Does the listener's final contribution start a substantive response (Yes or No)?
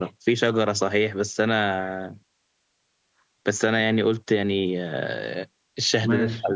No